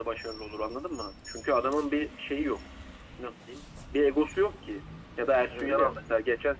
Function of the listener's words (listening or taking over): listening